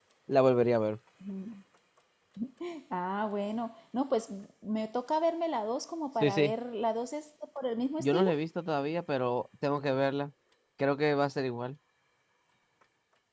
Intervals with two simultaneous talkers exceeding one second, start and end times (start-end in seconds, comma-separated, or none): none